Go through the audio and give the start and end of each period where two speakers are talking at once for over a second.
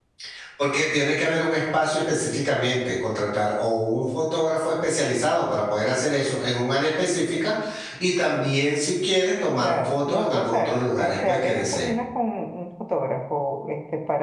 9.6-11.9

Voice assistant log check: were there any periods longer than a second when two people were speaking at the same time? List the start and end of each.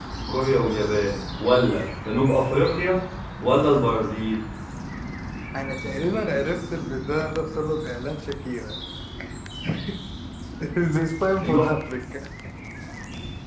none

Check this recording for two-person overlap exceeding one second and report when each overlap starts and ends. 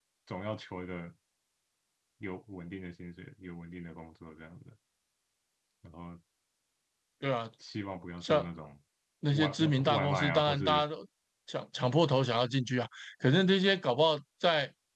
9.3-10.8

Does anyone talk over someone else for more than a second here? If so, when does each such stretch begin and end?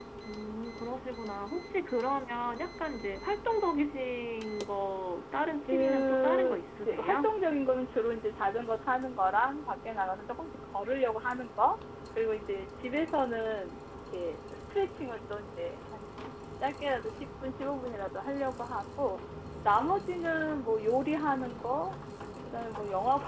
5.6-7.3

